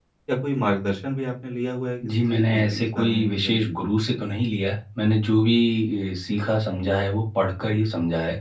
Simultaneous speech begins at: 2 s

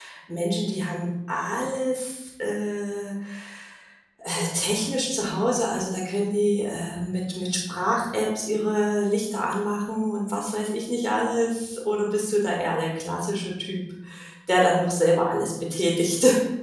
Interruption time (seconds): none

